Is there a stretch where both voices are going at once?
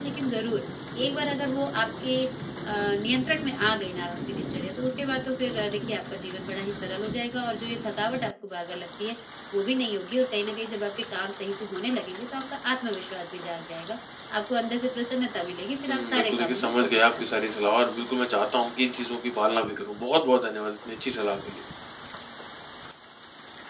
Yes, from 15.9 s

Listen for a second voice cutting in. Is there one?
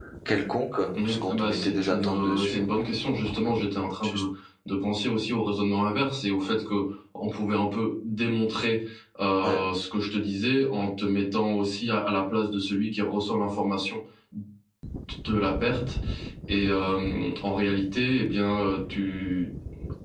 Yes, from 1.0 s

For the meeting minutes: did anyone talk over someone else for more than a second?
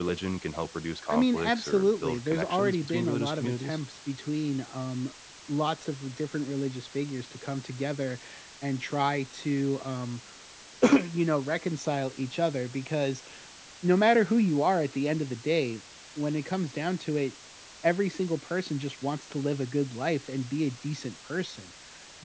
Yes, from 1.1 s

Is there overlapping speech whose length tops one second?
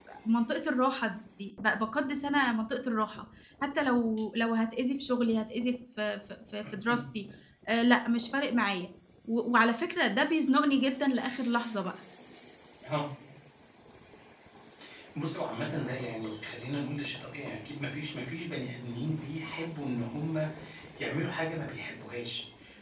No

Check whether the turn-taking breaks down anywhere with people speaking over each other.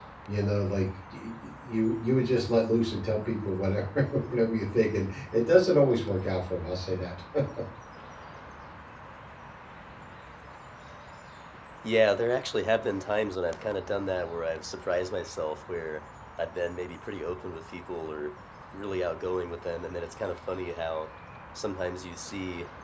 No

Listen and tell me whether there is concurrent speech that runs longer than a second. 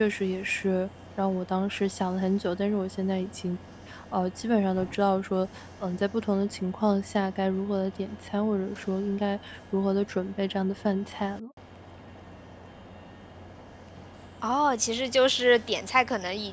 No

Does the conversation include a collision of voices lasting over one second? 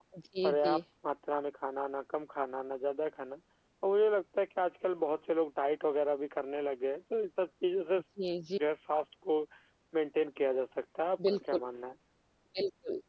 No

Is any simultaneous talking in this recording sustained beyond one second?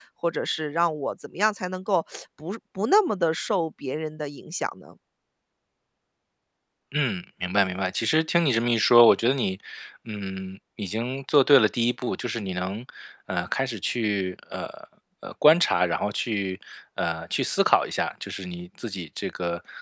No

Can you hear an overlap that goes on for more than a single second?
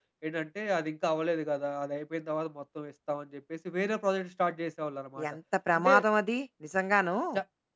No

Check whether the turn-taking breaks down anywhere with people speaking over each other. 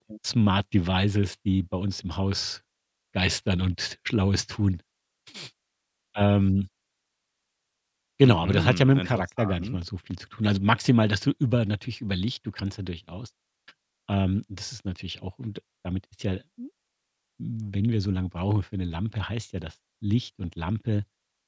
Yes, from 8.2 s

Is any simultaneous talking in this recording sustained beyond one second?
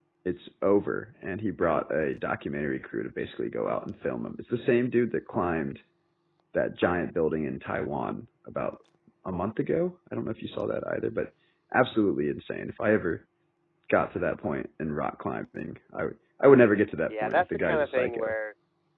Yes, from 17.1 s

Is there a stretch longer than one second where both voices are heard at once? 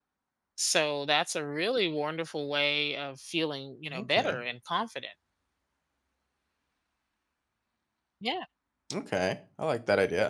No

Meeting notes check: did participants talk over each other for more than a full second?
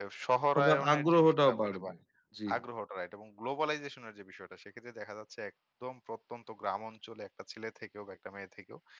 Yes, from 0.6 s

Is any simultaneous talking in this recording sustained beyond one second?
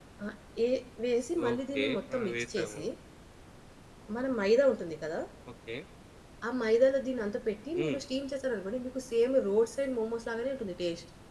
Yes, from 1.5 s

